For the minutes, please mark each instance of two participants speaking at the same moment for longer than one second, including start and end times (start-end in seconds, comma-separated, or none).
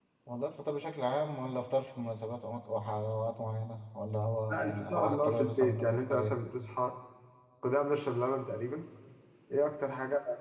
4.5-6.4